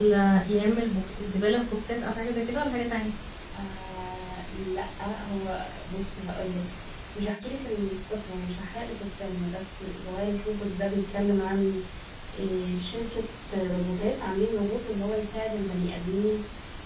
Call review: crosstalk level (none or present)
none